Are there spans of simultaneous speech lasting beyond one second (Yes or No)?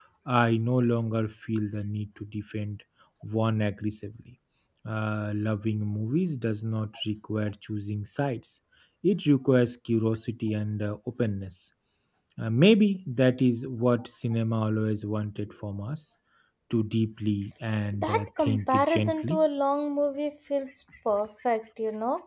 Yes